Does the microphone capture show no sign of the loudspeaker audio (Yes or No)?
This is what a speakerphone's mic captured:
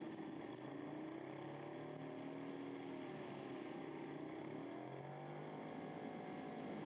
Yes